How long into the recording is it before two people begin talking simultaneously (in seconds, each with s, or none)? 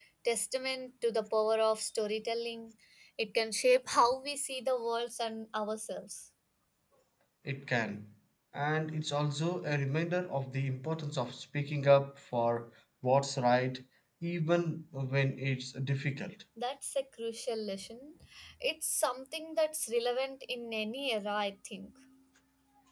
none